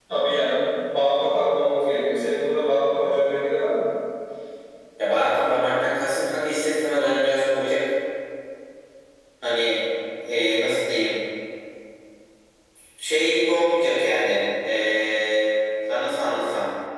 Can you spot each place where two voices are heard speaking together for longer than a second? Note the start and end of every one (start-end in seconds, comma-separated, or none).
none